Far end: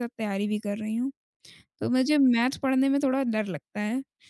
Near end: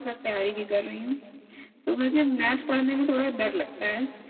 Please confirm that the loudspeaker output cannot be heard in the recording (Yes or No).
No